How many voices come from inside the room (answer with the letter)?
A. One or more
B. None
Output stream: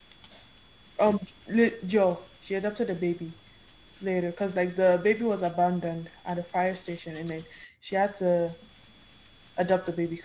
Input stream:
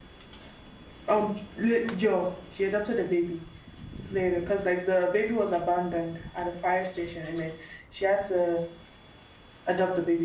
B